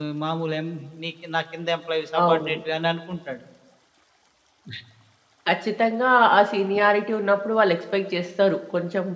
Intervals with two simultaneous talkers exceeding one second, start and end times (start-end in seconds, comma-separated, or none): none